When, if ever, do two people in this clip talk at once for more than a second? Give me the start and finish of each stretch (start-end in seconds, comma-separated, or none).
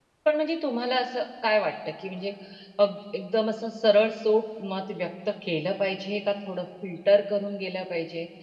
none